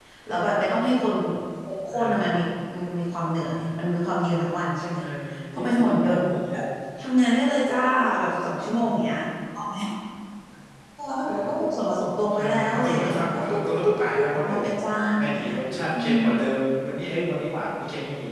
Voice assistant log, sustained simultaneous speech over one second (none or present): present